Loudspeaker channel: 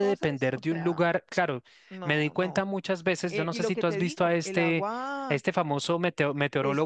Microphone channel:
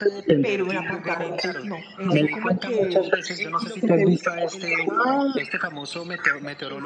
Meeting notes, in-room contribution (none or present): present